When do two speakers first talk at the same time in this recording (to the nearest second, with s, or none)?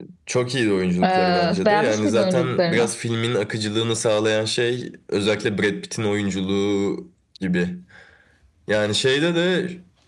1 s